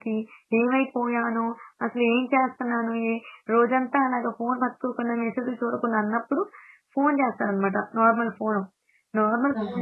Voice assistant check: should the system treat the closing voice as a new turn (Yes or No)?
No